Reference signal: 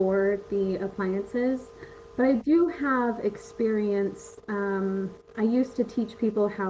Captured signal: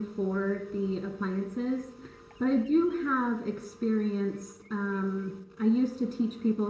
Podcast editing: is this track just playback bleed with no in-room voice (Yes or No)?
Yes